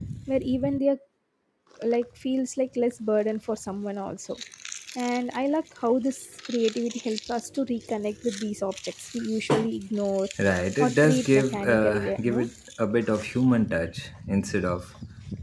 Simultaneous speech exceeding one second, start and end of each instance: 10.8-12.5

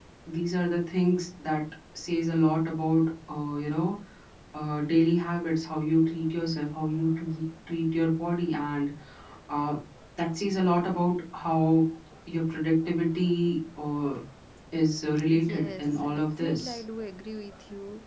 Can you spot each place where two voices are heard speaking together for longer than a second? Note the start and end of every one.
15.5-16.8

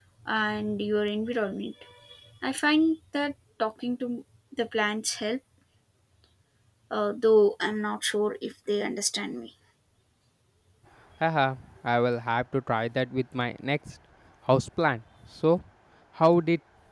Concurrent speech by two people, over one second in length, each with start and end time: none

